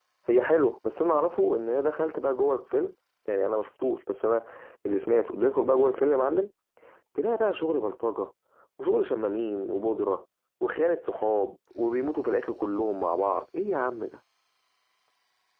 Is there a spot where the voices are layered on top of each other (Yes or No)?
No